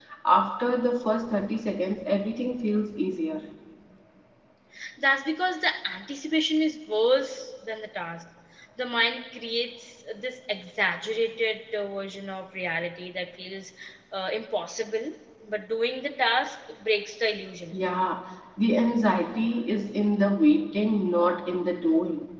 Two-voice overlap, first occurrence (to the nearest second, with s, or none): none